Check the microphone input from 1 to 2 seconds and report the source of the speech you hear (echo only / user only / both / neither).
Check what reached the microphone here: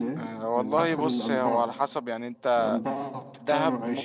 both